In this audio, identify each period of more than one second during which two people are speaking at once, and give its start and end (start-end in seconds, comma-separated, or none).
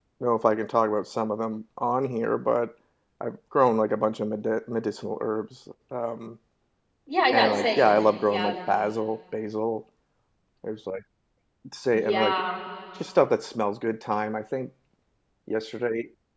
7.3-8.5